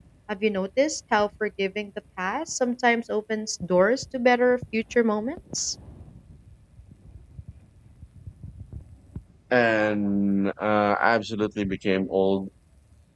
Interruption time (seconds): none

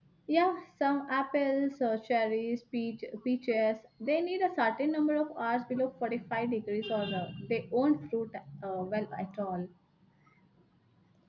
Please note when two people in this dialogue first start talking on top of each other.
none

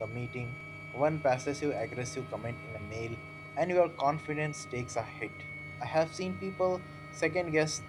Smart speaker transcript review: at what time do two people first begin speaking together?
none

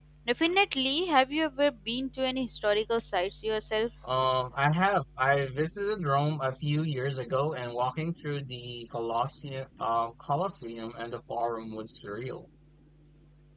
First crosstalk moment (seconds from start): none

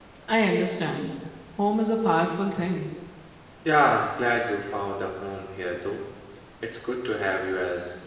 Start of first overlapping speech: none

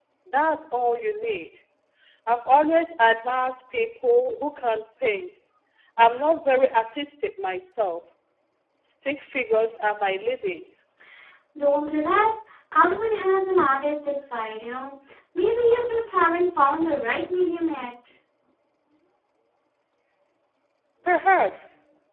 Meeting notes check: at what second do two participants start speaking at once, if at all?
none

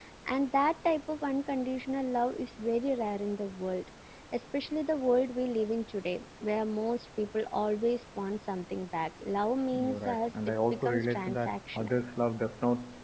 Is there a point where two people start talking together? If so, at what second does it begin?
10 s

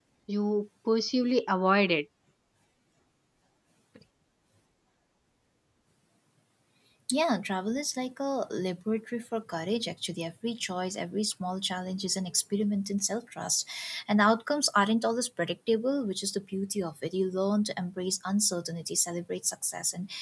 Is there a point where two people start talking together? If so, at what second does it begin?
none

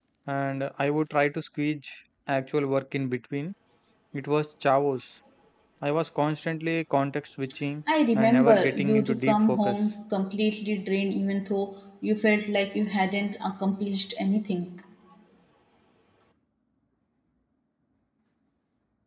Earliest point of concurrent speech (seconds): 8 s

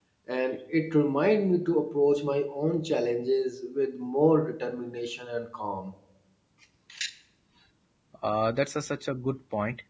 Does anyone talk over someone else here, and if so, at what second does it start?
none

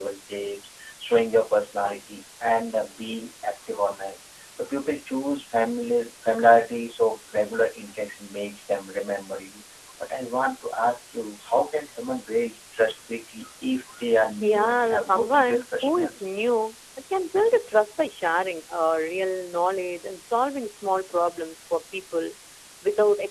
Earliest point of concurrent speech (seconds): 14 s

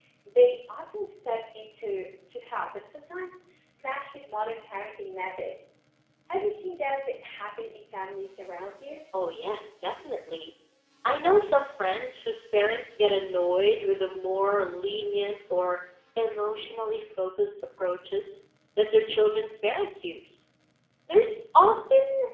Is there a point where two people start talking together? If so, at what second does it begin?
none

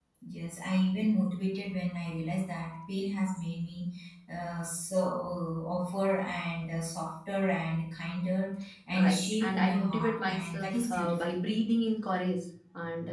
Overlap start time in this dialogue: 9 s

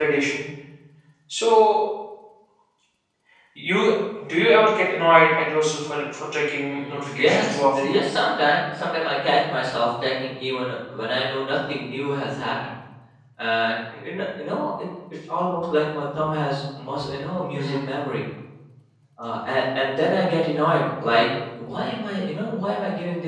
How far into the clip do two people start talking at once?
7 s

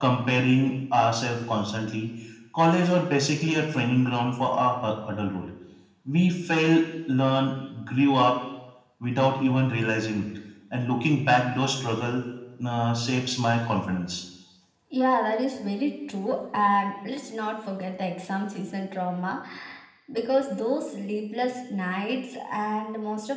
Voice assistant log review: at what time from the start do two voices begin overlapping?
none

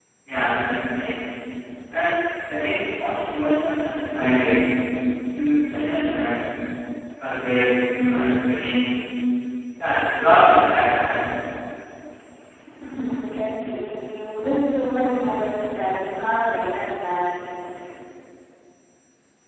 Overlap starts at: none

